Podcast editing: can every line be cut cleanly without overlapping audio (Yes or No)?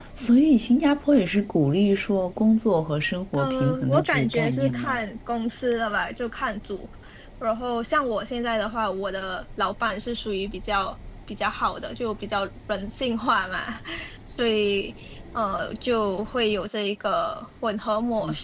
No